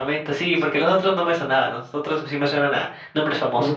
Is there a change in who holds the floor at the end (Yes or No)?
Yes